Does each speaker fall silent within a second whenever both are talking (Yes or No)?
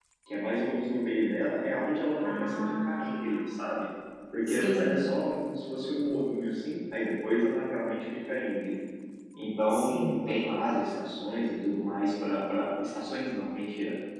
No